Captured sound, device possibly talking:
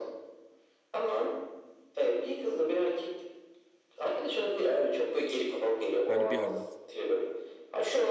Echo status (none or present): present